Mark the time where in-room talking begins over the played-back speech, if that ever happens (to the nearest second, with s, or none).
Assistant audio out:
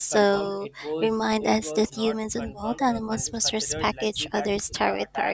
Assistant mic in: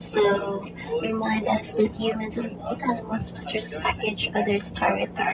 none